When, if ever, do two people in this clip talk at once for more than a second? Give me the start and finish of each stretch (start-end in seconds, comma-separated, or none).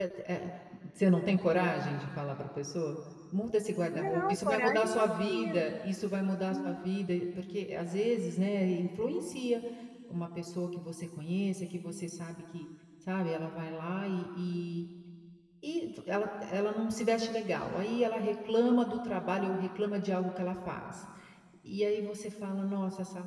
3.9-5.6